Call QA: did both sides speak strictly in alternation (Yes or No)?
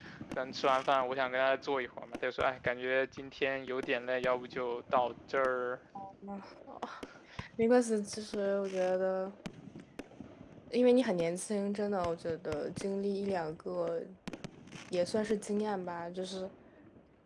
Yes